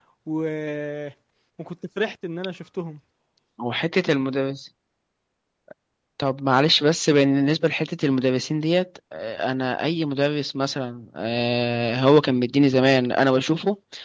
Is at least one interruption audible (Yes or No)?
No